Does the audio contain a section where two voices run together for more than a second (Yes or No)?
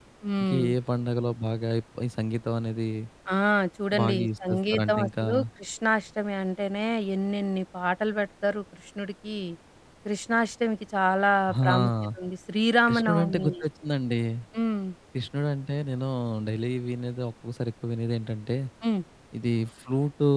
Yes